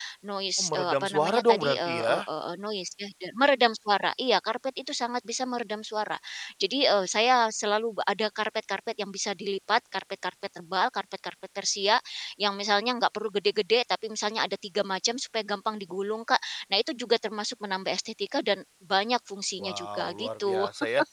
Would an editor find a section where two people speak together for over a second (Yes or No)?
Yes